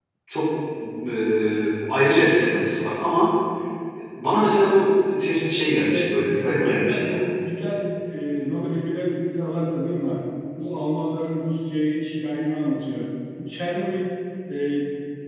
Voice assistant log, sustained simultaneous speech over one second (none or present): present